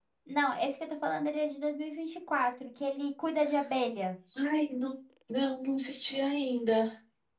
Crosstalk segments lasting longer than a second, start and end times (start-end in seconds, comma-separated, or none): none